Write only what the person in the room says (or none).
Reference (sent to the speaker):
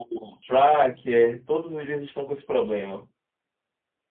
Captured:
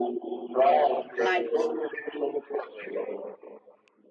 light.